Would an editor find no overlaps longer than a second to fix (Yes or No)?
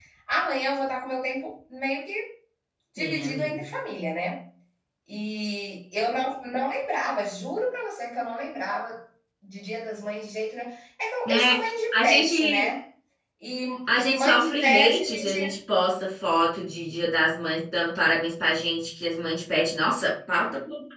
No